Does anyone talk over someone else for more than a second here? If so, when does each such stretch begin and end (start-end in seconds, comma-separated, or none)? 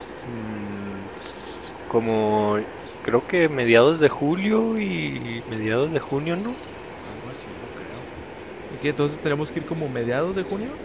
none